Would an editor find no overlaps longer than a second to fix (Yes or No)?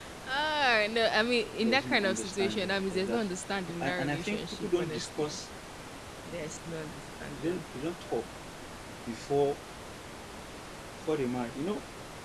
No